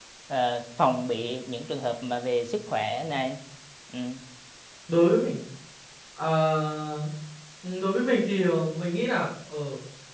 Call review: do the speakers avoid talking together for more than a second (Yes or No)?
Yes